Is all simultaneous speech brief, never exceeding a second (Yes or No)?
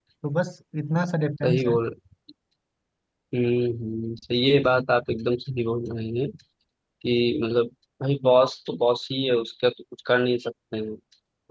Yes